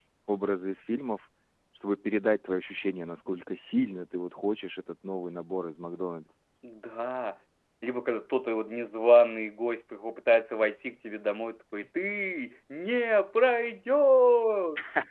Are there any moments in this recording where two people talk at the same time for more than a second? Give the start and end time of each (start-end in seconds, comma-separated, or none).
none